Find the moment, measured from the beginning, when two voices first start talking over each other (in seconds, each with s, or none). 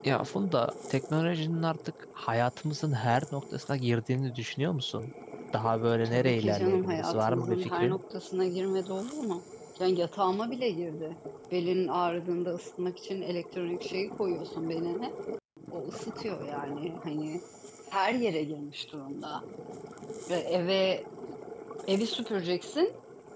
6.0 s